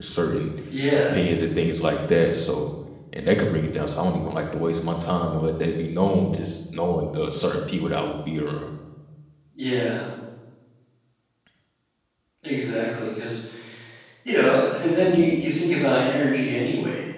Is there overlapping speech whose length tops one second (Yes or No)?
No